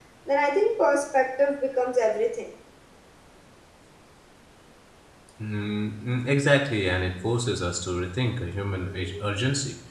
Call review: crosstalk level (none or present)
none